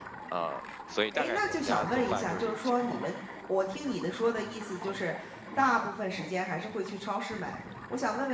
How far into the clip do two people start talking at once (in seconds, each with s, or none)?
1.1 s